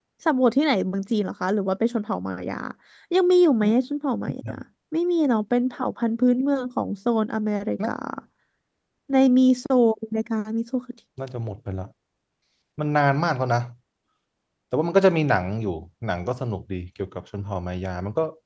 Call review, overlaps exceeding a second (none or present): none